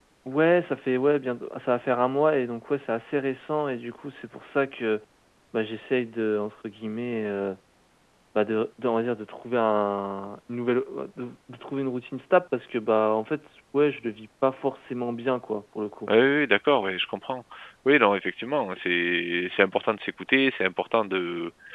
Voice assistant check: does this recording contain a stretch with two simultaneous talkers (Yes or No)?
No